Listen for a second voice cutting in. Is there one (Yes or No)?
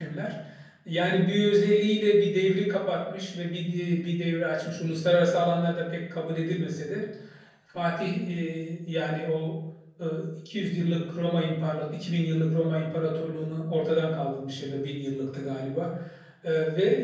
No